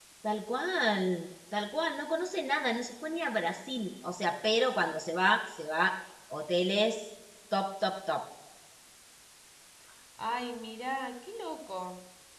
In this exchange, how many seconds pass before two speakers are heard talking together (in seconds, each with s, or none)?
none